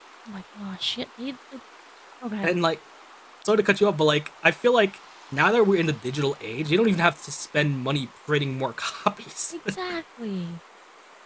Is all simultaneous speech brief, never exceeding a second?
Yes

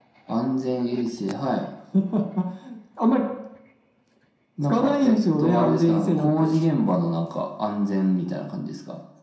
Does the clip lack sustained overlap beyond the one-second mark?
No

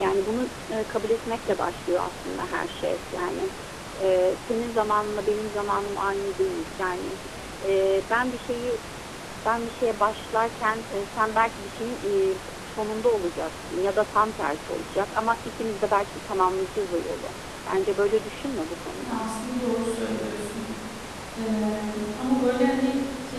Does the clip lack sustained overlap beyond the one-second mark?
Yes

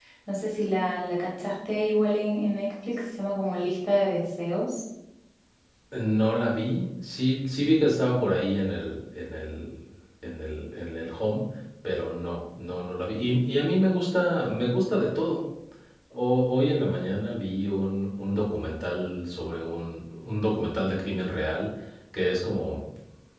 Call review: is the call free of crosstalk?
Yes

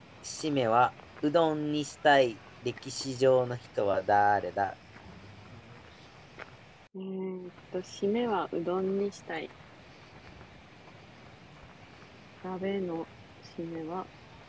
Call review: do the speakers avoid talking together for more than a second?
Yes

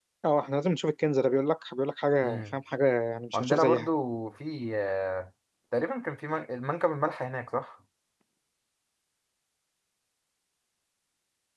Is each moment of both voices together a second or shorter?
Yes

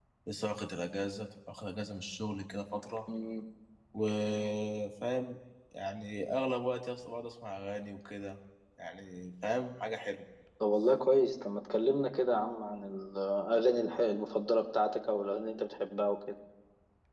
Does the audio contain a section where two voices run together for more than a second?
No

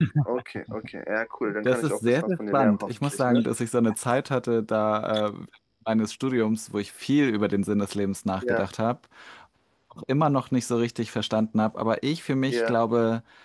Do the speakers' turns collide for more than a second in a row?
Yes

